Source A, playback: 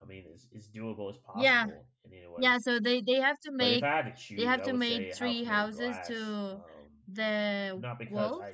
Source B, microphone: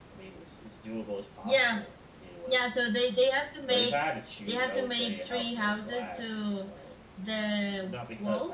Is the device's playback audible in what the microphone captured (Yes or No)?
Yes